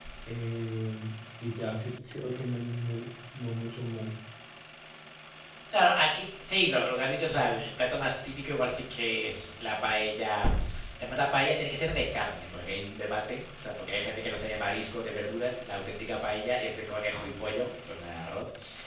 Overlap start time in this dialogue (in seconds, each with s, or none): none